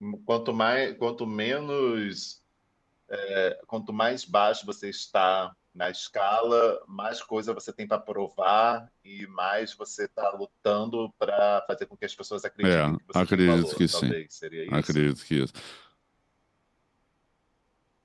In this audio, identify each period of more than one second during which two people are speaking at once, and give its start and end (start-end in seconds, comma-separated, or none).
12.6-14.1